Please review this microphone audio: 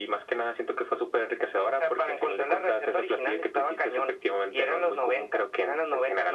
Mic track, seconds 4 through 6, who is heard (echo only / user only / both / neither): echo only